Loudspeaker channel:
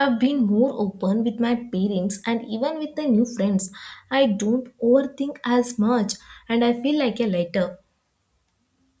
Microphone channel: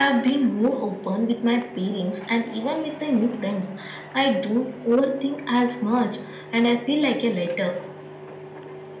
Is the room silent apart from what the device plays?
Yes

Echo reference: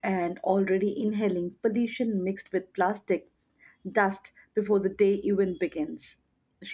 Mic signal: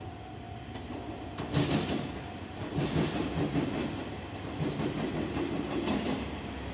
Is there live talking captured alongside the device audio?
No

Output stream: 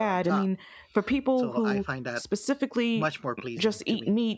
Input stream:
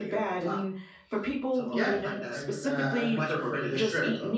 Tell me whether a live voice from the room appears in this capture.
Yes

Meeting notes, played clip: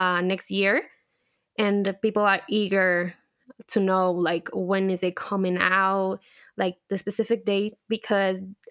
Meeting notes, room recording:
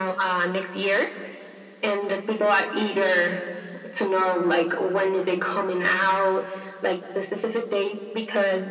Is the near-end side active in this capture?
No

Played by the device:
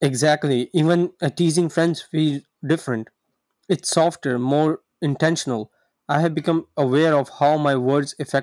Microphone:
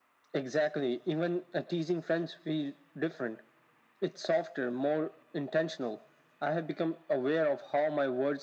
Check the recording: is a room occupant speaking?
No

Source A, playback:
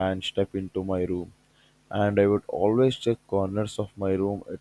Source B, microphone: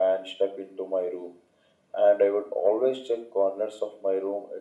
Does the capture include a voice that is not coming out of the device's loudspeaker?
No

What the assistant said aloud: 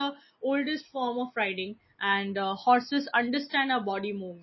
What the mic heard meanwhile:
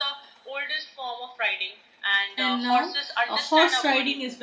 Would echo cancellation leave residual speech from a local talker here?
Yes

